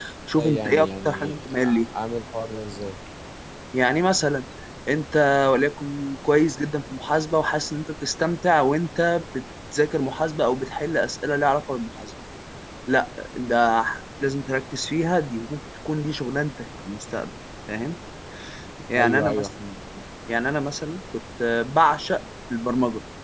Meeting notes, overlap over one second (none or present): present